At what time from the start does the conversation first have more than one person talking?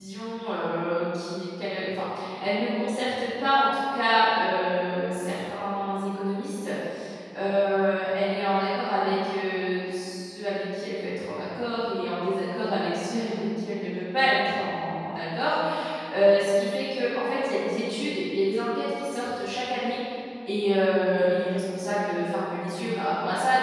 none

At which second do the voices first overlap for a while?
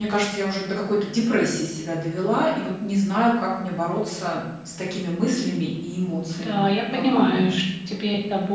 6 s

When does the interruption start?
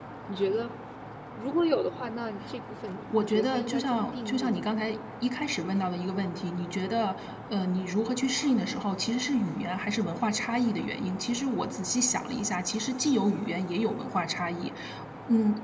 3 s

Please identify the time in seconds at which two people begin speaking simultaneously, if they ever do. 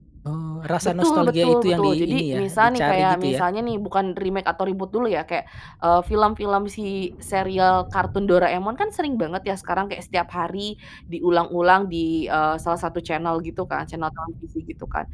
1 s

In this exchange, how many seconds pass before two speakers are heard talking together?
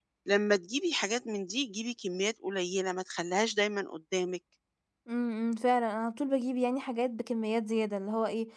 none

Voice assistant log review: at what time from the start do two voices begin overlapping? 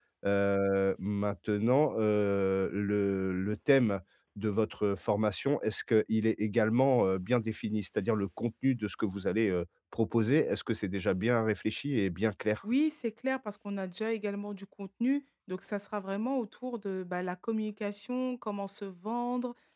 none

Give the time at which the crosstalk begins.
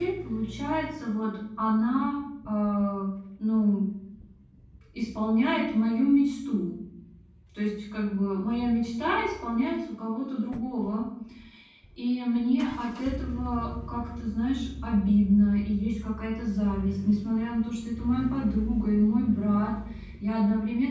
none

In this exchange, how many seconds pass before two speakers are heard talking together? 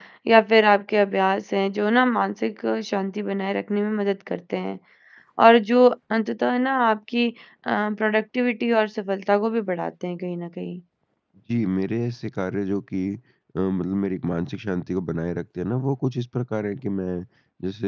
none

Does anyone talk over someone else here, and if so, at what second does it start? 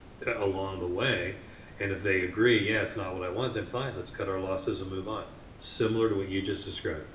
none

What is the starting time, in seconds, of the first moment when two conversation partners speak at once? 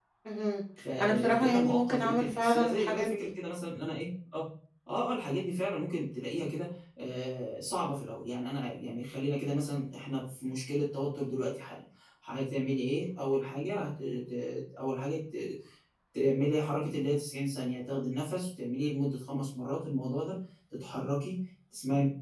1 s

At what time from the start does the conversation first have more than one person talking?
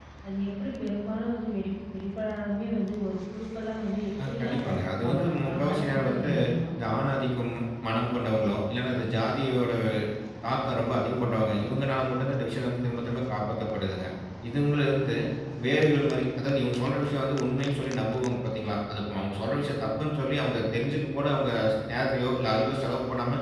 4 s

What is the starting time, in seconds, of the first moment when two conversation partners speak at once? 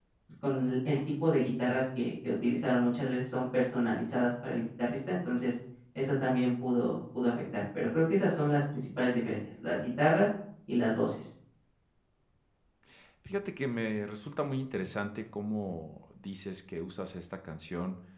none

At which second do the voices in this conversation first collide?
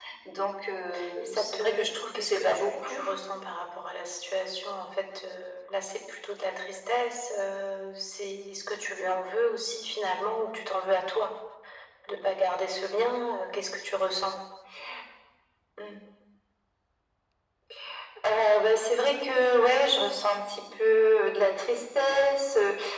1 s

